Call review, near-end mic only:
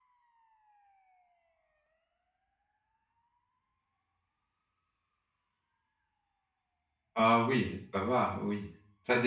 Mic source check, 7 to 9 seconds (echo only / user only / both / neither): user only